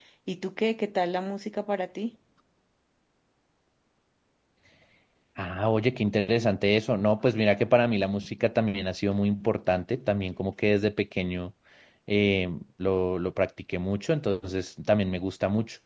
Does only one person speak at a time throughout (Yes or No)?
Yes